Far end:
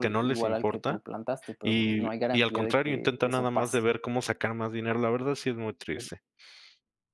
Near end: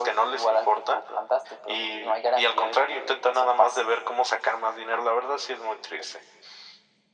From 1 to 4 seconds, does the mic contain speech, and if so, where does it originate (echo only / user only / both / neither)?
echo only